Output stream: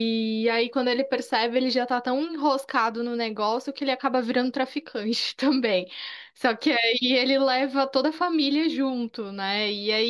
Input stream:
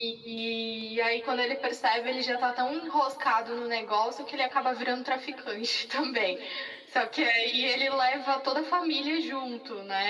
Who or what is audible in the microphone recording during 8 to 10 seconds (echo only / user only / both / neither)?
echo only